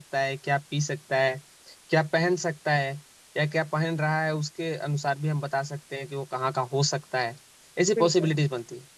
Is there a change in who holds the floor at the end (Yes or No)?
No